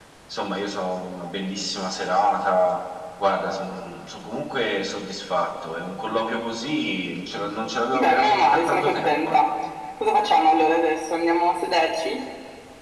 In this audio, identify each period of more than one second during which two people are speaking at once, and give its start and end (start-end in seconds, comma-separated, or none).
7.9-9.4